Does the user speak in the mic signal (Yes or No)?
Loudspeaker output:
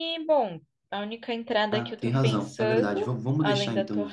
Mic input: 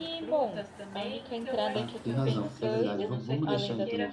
Yes